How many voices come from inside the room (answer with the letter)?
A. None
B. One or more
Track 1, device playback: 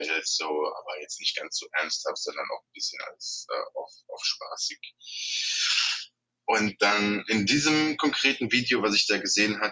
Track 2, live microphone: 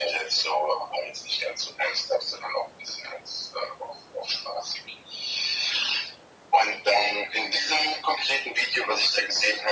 A